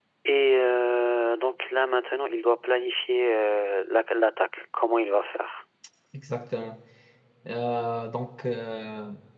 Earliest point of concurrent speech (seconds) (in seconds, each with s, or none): none